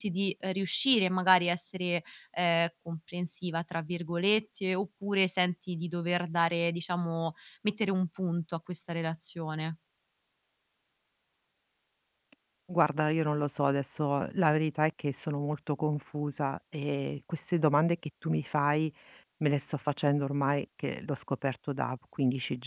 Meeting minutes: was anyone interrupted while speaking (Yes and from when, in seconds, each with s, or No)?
No